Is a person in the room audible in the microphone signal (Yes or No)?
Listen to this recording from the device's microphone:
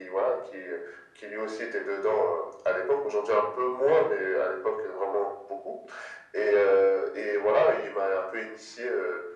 No